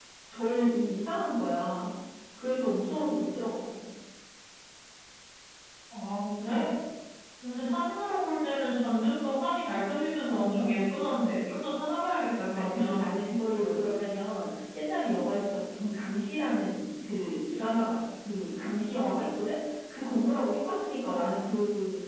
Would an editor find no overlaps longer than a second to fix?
Yes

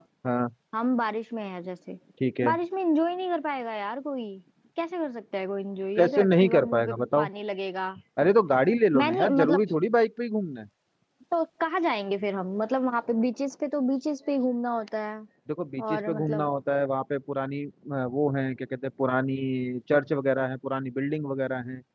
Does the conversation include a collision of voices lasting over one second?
Yes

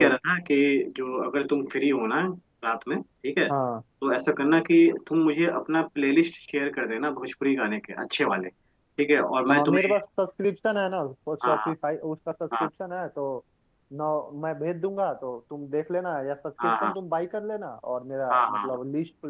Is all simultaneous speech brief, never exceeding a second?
Yes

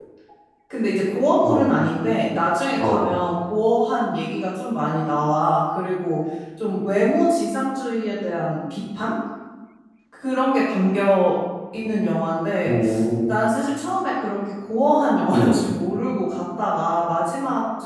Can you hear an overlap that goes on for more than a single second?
No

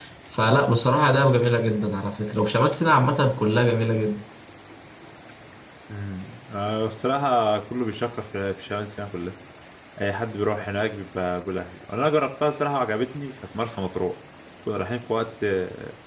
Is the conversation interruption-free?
Yes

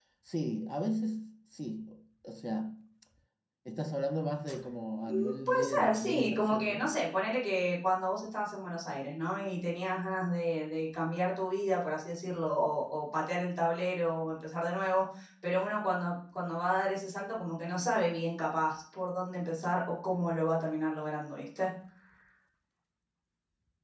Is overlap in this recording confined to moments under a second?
No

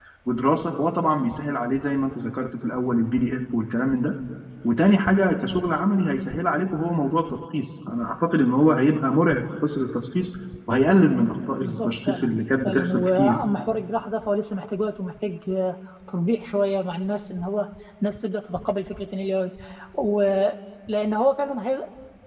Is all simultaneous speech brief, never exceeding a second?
No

